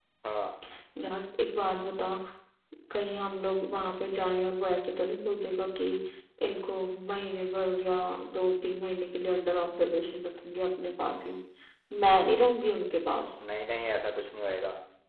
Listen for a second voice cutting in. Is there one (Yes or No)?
No